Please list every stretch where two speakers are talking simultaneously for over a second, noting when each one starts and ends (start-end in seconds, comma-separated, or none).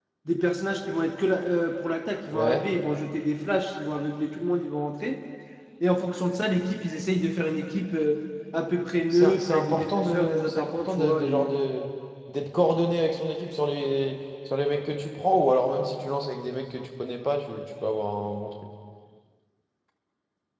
9.1-11.5